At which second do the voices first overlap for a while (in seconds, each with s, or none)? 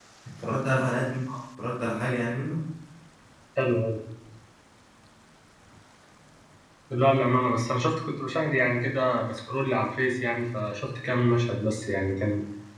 none